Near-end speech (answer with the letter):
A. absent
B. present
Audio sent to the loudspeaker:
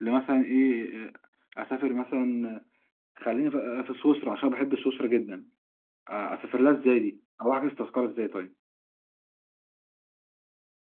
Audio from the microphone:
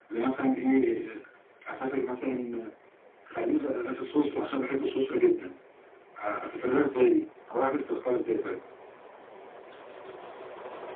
A